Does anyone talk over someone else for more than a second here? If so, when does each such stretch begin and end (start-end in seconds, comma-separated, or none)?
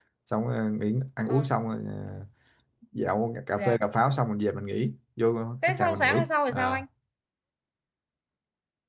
5.6-6.8